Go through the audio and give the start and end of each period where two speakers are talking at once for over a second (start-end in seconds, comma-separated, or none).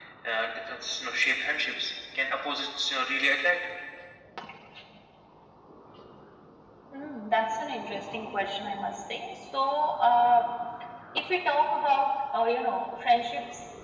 none